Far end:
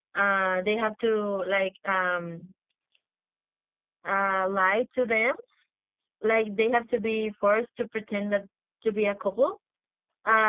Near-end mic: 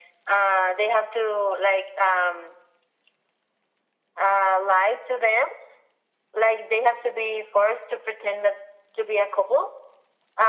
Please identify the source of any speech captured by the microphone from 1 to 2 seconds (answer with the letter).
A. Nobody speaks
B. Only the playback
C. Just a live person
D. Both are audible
B